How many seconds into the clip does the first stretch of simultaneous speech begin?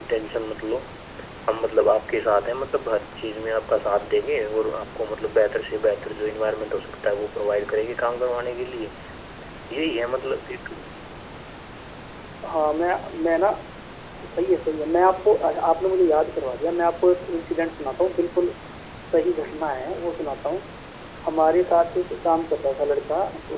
none

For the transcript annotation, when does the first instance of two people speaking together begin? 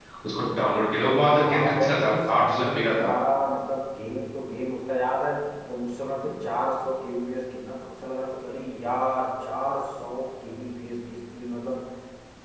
1.4 s

